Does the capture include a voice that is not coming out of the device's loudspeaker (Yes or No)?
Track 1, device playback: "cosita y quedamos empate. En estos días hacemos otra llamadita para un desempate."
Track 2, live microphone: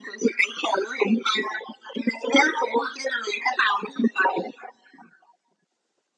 No